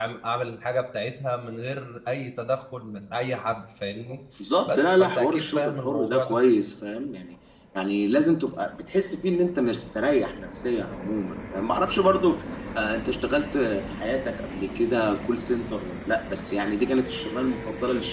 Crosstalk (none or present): present